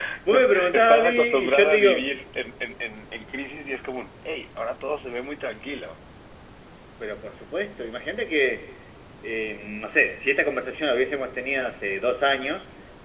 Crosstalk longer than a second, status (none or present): present